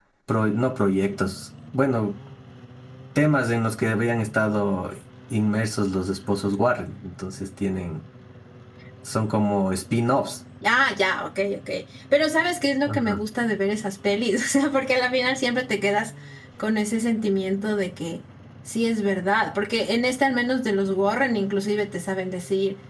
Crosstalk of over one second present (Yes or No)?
No